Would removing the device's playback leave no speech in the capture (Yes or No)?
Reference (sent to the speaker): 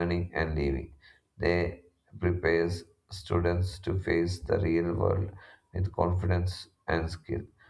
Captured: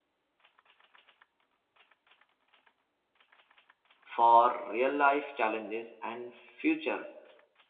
No